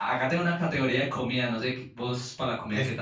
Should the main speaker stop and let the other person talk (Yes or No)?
Yes